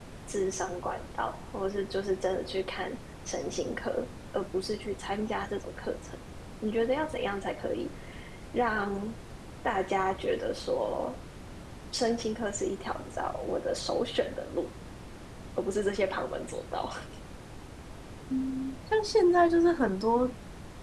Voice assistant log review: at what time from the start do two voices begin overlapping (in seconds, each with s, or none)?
none